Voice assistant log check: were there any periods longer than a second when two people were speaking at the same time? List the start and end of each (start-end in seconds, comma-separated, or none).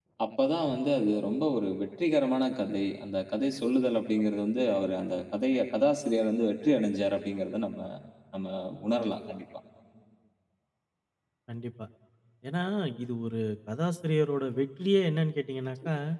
none